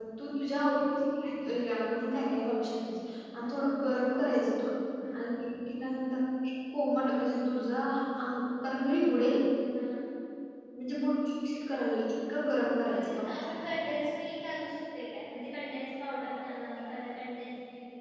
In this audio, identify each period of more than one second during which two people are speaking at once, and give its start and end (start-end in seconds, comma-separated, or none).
none